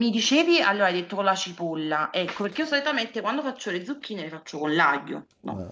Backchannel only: No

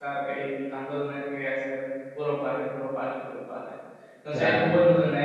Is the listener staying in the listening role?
Yes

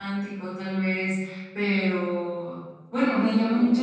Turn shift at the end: No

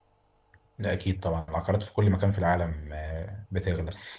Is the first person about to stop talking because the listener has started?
No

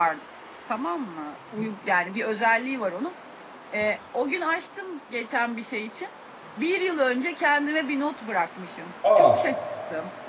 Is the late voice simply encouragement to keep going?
Yes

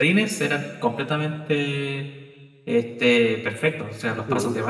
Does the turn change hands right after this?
No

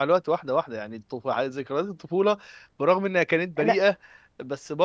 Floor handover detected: No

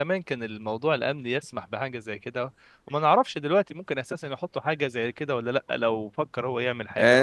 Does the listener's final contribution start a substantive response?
Yes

